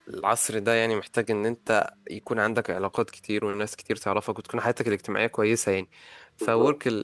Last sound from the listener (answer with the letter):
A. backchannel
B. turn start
A